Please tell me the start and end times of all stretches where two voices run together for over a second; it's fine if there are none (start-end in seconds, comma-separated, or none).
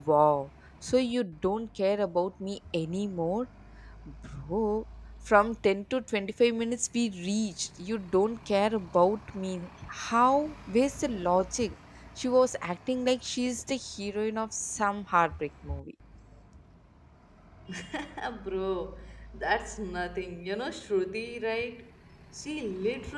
none